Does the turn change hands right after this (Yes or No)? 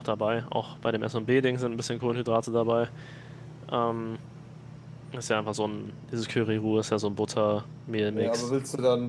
Yes